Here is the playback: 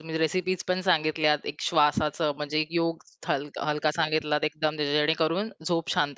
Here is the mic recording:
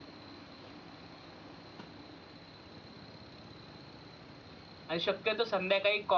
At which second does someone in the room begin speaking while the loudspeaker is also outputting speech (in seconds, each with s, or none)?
4.9 s